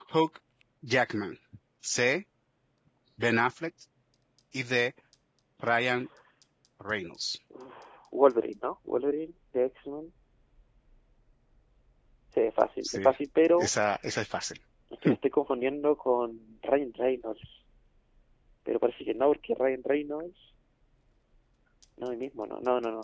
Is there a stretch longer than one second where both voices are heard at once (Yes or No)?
No